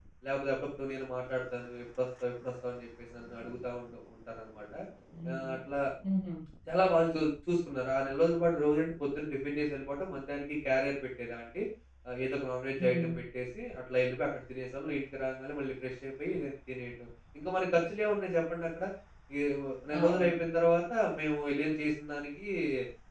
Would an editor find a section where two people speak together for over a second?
No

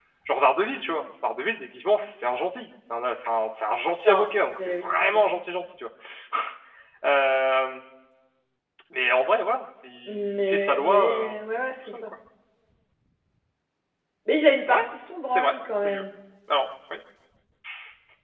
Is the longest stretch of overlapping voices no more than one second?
No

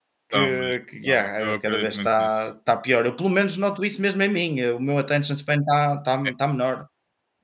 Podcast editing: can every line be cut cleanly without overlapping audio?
No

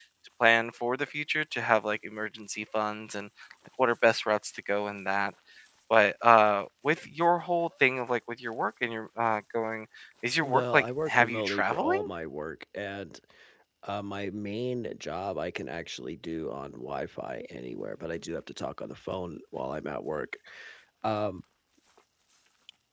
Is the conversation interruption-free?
No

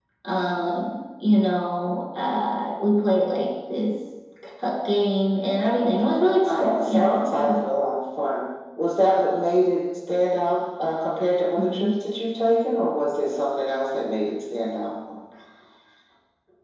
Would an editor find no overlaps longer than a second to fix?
No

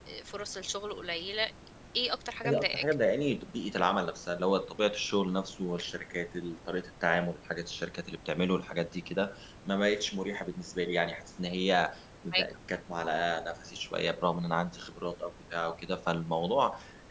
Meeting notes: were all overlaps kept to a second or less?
Yes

